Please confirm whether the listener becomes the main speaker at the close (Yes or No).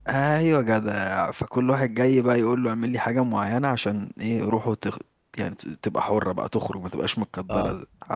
No